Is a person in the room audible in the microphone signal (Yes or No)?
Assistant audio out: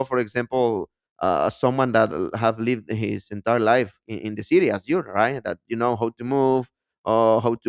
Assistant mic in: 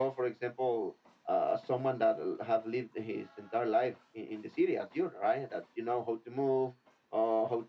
No